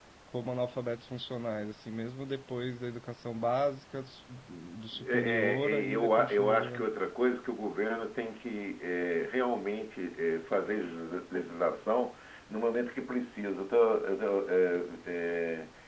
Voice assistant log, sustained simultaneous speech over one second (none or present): present